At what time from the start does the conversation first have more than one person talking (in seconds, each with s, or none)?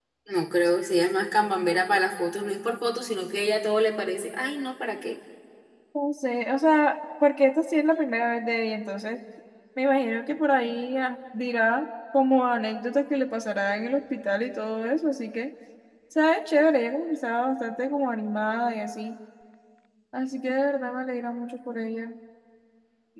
none